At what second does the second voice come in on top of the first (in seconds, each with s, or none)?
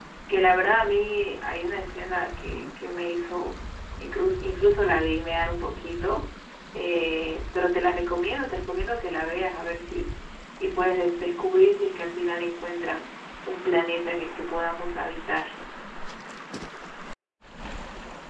none